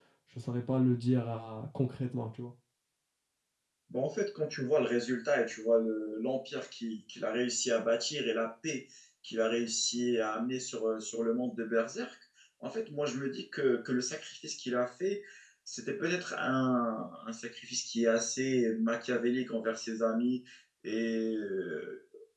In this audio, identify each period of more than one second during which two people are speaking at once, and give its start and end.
none

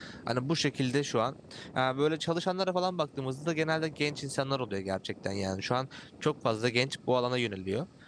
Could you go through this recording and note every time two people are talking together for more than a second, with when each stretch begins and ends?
none

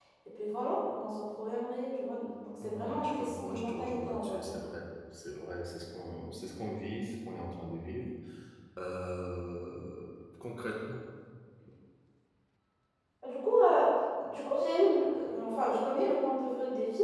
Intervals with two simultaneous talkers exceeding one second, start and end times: 2.6-4.6

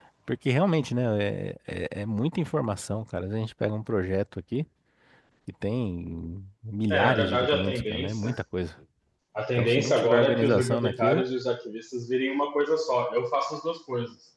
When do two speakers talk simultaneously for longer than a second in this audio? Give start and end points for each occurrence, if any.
6.9-8.4, 9.6-11.2

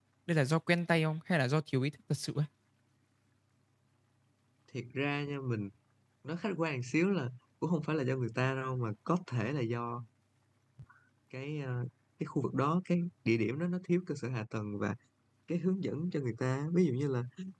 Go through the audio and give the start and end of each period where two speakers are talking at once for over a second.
none

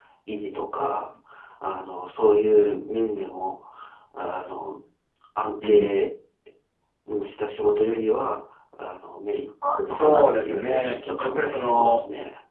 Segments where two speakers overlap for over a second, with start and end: 9.9-12.0

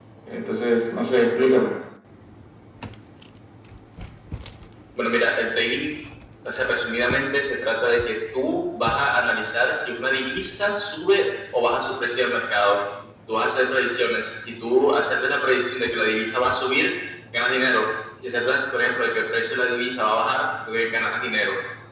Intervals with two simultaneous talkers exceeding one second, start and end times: none

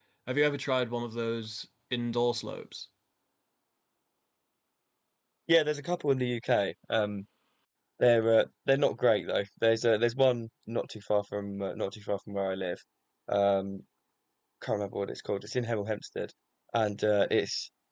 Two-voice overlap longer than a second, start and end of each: none

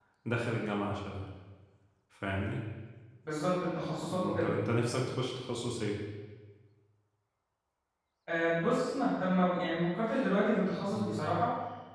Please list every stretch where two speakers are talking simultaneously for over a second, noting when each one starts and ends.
none

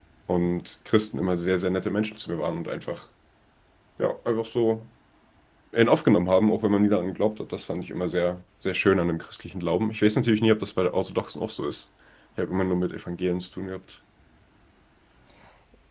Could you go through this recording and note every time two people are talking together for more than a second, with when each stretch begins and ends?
none

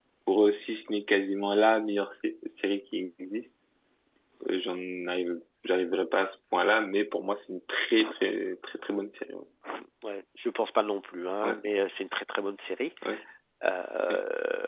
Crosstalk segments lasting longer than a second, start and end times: none

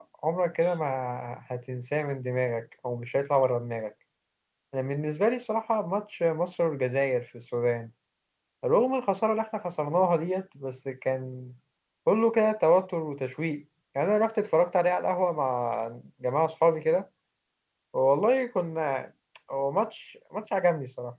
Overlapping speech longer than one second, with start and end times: none

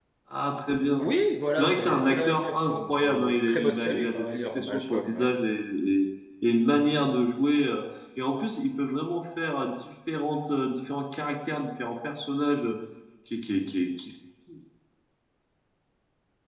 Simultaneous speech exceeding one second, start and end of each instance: 1.6-5.3

